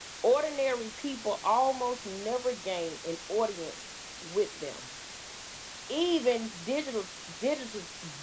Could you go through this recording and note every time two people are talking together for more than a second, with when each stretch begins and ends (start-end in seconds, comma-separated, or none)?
none